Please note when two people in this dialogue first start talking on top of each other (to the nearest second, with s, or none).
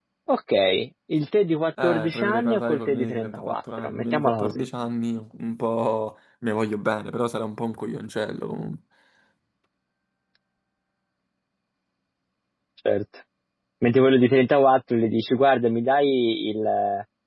2 s